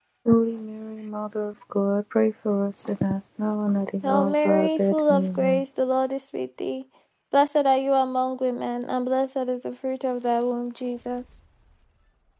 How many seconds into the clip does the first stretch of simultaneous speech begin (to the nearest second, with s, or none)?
4 s